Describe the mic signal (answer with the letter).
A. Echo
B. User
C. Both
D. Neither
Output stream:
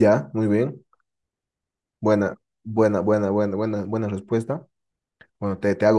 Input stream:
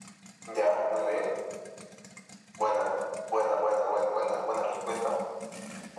A